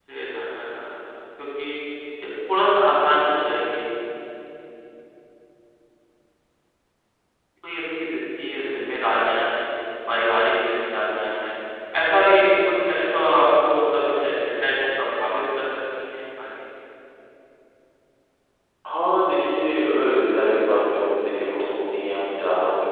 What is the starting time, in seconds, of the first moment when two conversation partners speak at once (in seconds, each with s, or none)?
none